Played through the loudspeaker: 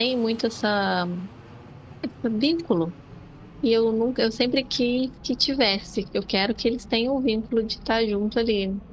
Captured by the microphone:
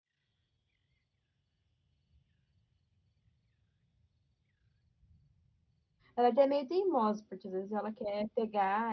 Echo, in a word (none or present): none